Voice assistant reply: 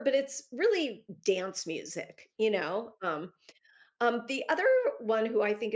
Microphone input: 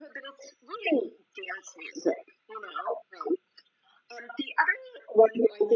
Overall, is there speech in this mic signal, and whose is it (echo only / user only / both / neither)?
echo only